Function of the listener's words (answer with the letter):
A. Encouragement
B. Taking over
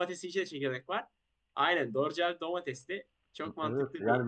B